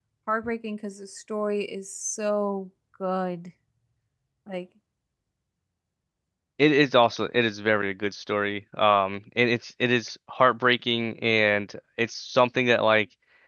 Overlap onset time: none

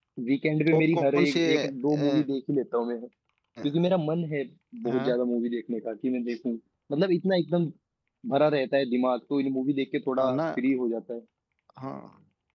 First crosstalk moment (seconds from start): 0.7 s

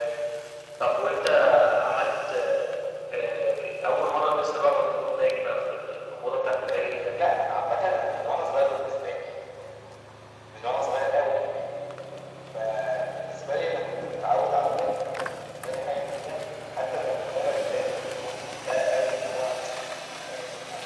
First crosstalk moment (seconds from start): 6.1 s

